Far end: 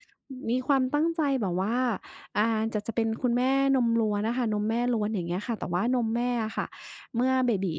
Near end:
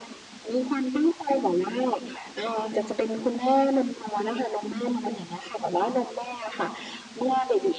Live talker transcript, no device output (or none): none